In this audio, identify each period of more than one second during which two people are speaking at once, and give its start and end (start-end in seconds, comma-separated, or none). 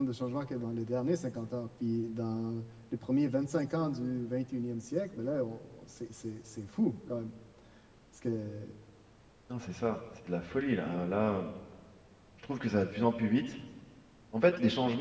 none